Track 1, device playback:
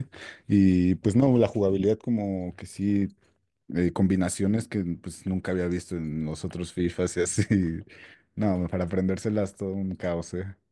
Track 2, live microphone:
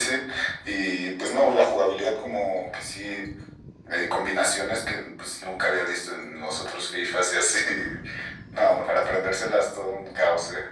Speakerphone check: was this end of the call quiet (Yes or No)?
Yes